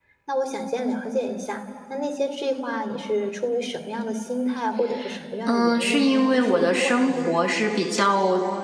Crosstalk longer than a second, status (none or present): present